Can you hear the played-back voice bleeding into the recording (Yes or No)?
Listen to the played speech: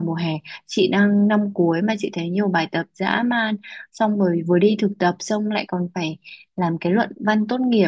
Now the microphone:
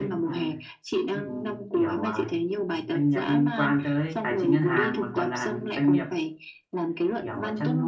Yes